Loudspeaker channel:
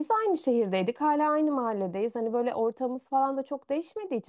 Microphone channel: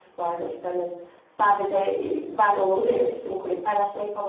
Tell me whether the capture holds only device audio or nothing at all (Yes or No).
No